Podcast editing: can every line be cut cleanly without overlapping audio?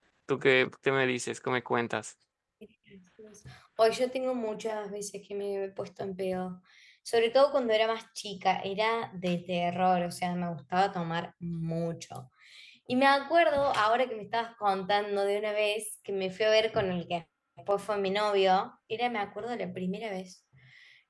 Yes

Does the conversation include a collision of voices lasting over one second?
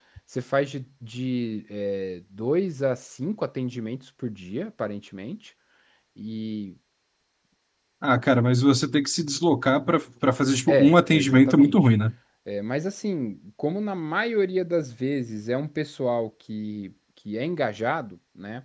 Yes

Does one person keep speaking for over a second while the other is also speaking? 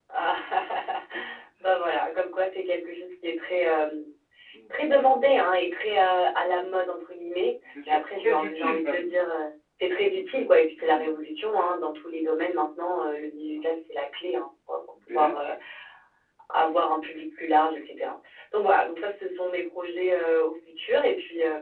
Yes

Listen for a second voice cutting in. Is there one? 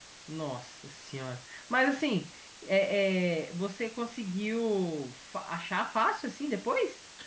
No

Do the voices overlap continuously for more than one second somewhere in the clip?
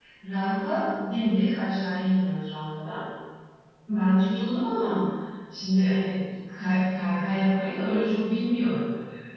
No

